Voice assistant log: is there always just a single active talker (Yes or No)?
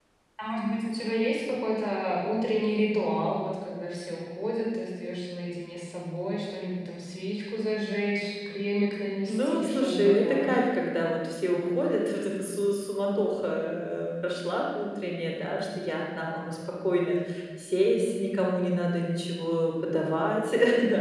No